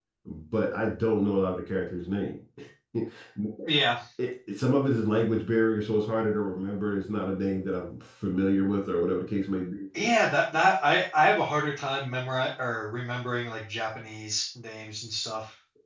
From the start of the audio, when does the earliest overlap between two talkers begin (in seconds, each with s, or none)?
none